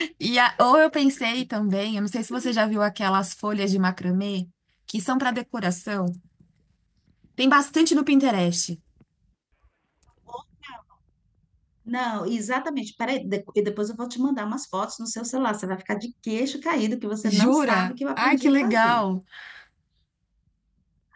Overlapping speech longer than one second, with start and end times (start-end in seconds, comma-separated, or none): 17.4-19.0